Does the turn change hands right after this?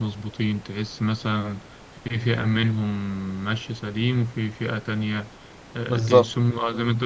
No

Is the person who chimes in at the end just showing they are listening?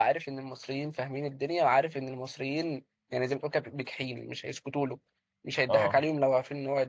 Yes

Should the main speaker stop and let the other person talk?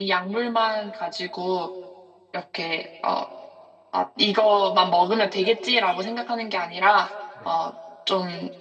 No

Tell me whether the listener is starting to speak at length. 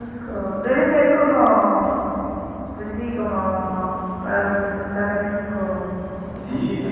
Yes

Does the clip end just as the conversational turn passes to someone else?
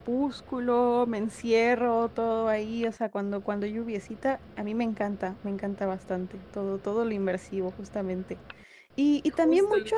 No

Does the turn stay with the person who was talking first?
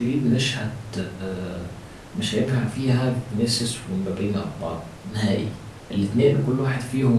Yes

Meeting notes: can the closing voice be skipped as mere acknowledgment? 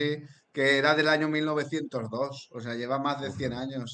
Yes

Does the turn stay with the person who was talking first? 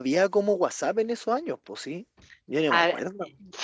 No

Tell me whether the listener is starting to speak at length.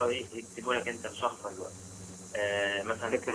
No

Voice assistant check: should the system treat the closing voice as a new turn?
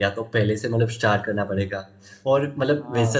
No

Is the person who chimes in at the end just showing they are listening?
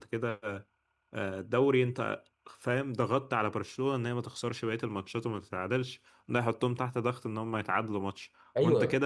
Yes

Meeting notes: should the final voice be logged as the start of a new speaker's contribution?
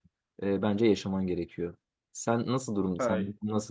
No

